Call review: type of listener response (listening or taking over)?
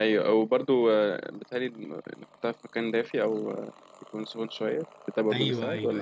taking over